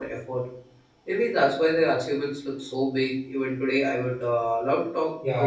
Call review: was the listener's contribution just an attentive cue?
No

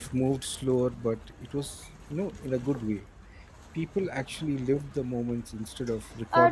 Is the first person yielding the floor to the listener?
Yes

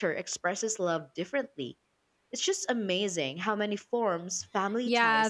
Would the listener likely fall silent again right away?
No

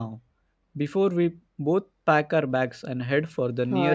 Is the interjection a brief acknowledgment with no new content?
No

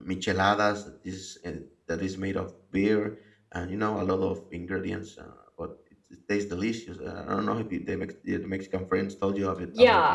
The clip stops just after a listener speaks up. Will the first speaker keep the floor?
No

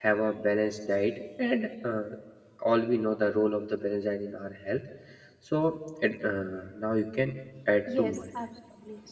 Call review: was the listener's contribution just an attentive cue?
No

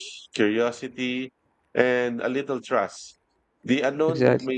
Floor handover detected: No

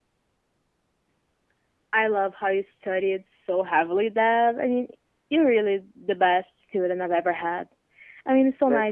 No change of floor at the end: Yes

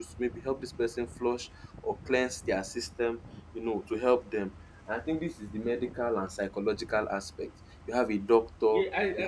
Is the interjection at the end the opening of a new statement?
Yes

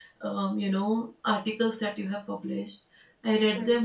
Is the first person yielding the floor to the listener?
No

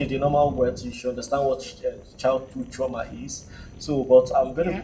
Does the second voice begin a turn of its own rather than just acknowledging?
No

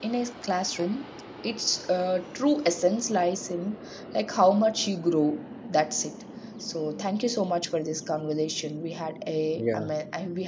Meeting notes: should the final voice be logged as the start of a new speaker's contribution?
No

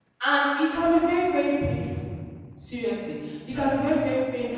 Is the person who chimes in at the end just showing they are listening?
Yes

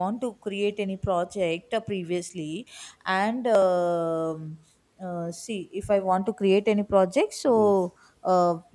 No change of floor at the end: Yes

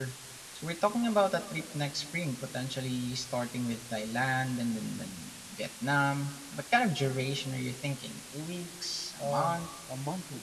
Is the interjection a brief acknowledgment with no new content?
No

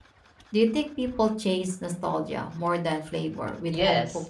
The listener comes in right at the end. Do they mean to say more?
Yes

